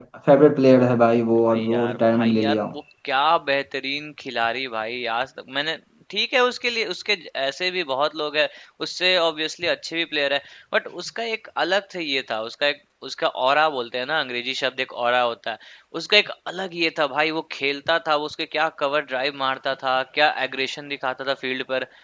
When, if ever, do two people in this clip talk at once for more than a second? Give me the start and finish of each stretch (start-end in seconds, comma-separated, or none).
1.4-2.6